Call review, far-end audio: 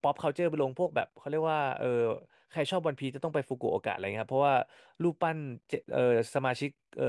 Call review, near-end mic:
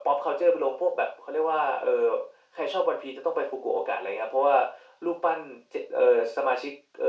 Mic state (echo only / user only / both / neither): echo only